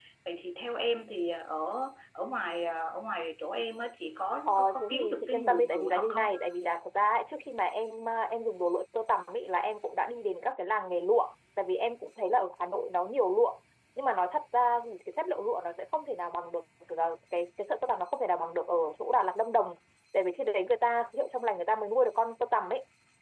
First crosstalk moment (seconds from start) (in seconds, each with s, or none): 4.5 s